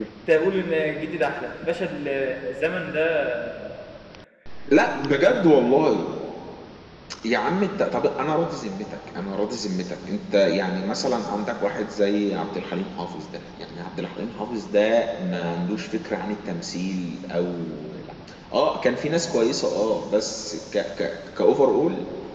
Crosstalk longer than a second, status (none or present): none